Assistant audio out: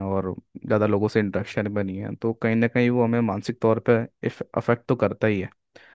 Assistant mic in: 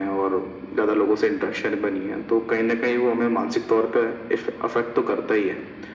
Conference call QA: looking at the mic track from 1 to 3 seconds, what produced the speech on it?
echo only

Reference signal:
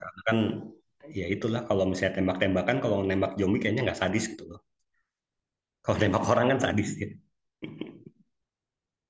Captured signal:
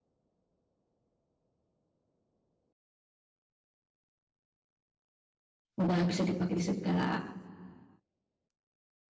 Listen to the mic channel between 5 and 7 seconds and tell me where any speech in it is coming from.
user only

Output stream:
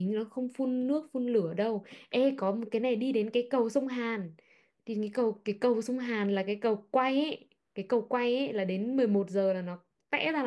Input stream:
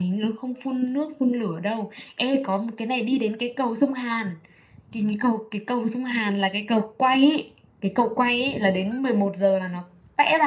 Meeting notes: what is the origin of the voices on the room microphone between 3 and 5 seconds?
echo only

